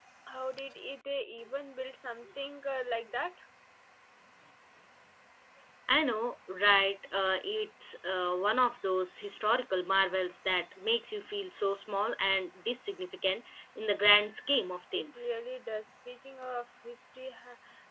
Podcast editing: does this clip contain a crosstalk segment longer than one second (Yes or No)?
No